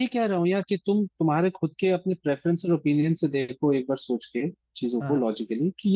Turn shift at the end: No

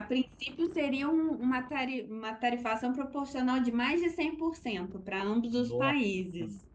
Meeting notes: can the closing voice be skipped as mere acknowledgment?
No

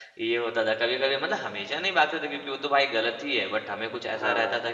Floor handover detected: No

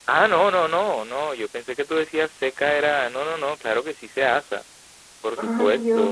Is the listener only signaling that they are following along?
No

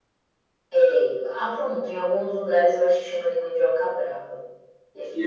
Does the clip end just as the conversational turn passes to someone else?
Yes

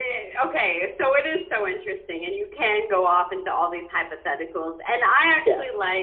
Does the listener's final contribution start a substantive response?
No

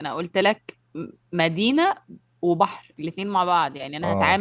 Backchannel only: Yes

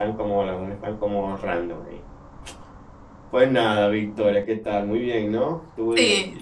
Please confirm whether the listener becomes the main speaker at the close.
Yes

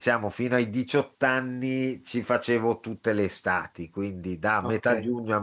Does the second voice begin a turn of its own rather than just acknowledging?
No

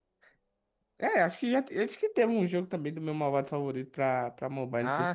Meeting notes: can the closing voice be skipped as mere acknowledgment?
No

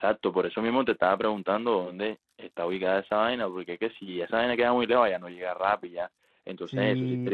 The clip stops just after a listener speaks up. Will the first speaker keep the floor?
No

